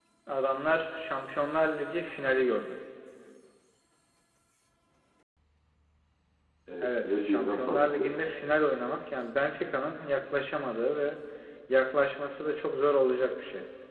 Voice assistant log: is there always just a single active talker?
No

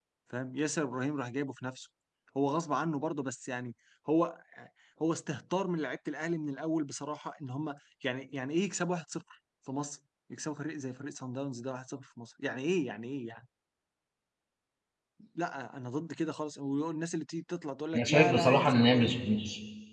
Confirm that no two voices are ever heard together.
No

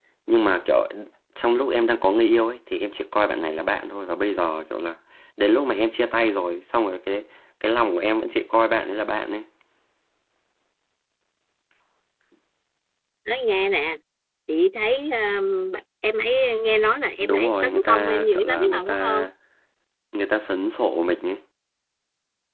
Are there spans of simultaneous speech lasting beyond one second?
Yes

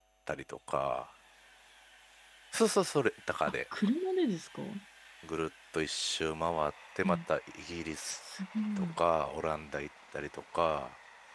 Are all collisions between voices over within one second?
Yes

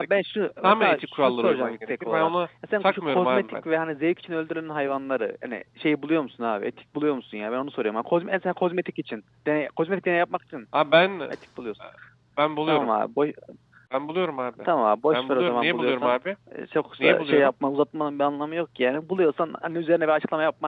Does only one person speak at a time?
No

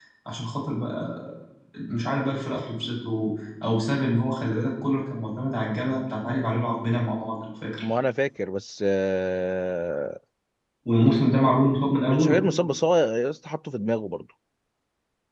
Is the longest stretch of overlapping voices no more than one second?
Yes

